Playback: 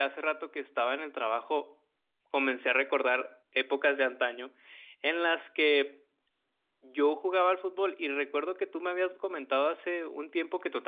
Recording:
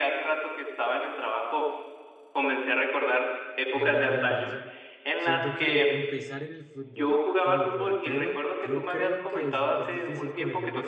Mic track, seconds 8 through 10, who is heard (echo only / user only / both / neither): both